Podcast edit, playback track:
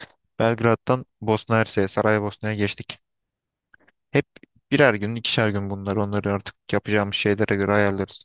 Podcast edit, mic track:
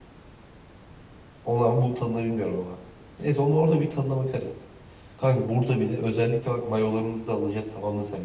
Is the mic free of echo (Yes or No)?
Yes